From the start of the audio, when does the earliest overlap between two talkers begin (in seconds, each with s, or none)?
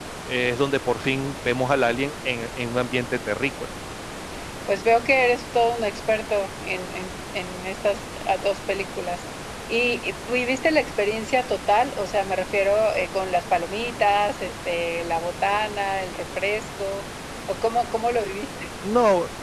none